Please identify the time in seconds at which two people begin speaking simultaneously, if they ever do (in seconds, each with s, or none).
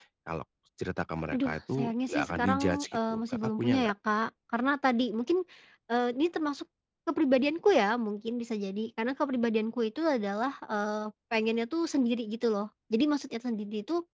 1.3 s